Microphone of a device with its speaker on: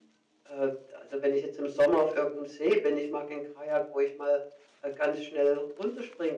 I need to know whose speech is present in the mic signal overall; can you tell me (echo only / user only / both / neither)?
echo only